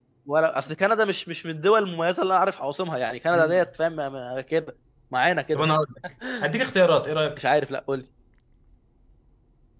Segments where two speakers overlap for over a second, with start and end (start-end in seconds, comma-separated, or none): none